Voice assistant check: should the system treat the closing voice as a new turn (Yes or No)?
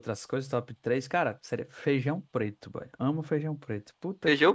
Yes